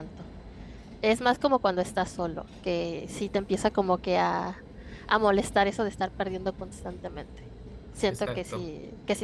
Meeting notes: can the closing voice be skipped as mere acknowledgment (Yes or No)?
Yes